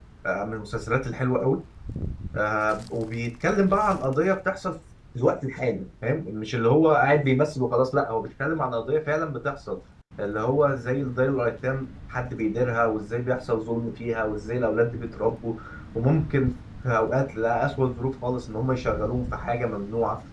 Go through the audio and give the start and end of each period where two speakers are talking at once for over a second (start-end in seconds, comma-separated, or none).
none